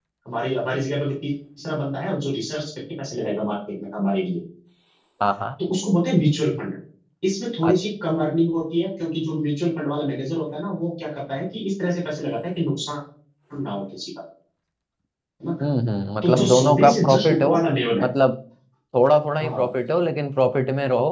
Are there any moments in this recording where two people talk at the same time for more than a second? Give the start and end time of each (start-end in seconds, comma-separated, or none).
16.2-17.6